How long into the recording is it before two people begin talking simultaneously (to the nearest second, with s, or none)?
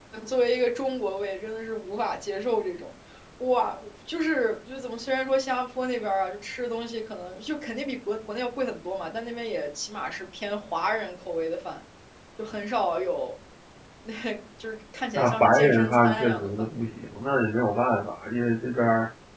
15 s